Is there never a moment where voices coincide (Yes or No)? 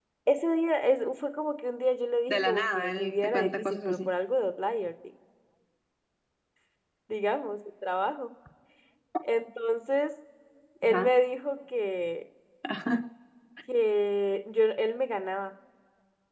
No